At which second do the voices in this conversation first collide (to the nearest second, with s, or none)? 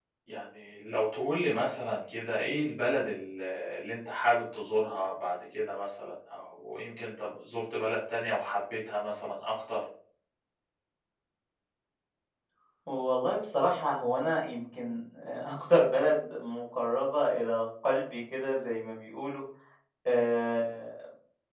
none